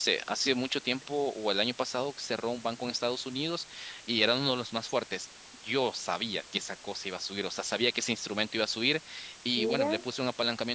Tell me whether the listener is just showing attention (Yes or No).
Yes